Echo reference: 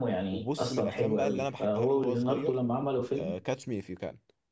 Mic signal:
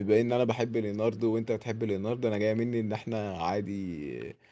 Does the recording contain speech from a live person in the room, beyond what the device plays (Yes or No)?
Yes